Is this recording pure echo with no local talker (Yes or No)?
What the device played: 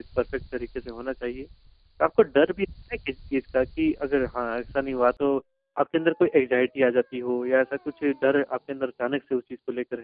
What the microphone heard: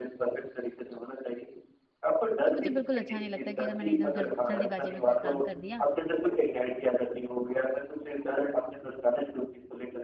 No